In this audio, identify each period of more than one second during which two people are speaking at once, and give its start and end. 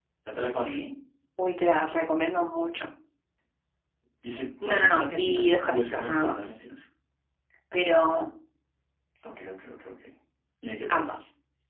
4.7-6.6

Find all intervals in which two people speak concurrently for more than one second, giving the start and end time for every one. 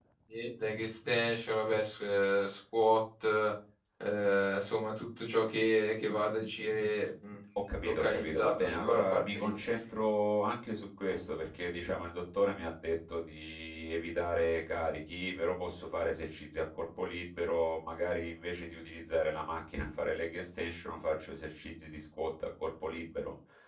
7.8-9.6

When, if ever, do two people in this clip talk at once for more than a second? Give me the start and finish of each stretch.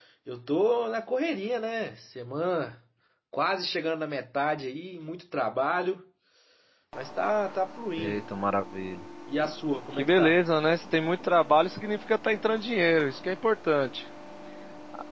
none

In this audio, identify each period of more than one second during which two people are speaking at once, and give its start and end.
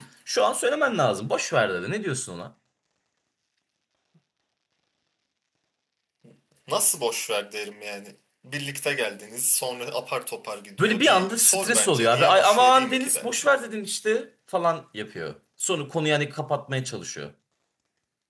10.8-13.5

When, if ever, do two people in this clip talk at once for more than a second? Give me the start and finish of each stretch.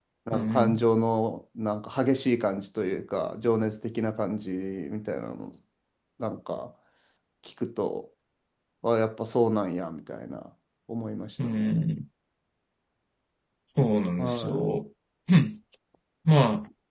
none

